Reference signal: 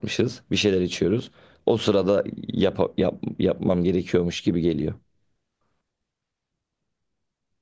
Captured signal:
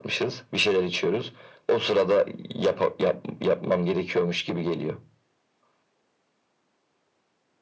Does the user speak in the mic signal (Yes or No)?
No